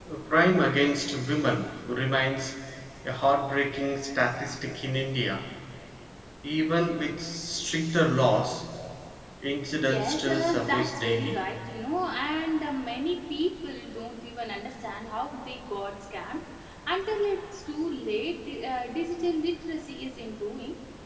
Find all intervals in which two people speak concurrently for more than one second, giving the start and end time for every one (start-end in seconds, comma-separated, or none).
9.9-11.4